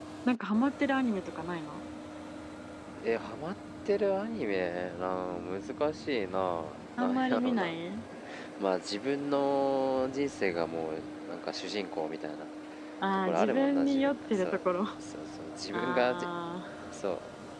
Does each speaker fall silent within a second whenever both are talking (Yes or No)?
No